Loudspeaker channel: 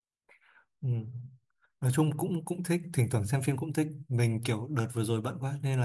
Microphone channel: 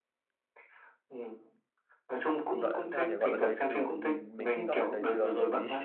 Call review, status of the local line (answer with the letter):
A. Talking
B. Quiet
A